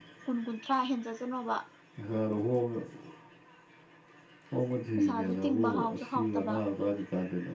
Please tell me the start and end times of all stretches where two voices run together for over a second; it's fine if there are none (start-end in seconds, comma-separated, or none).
5.0-6.6